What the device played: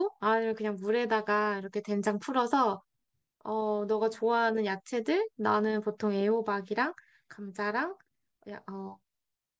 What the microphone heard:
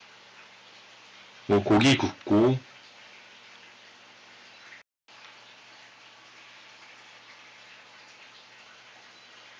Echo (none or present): none